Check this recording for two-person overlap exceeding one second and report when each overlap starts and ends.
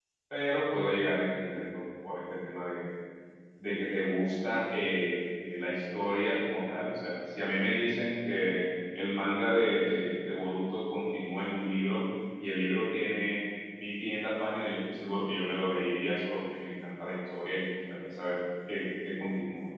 none

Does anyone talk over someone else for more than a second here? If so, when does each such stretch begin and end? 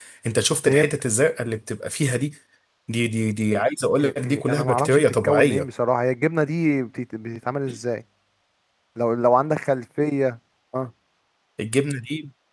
4.0-5.7

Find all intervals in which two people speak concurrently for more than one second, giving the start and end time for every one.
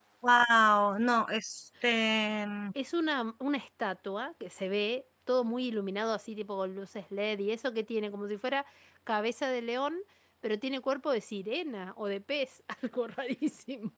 none

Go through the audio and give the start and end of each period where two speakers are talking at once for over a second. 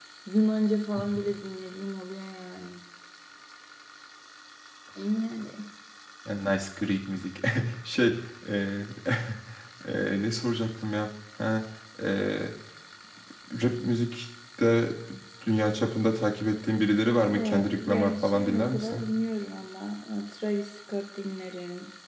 17.2-19.1

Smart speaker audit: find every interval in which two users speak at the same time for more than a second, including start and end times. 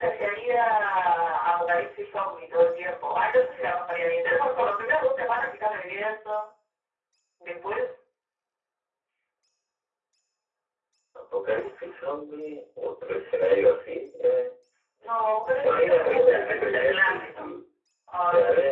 15.6-17.4

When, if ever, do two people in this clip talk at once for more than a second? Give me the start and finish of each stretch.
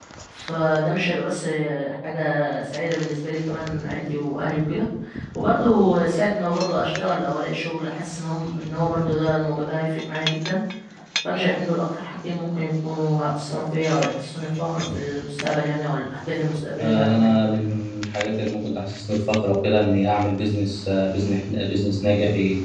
none

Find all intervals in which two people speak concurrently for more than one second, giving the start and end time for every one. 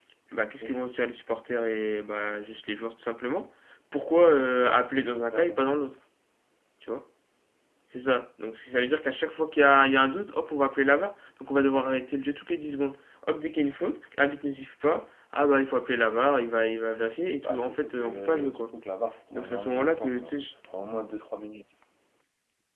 17.4-18.6, 19.3-20.5

